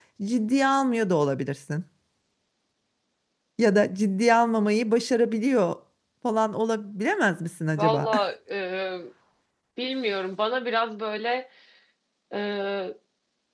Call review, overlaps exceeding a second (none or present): none